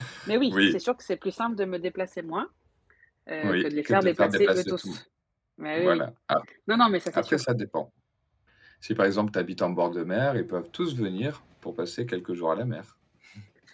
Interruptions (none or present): present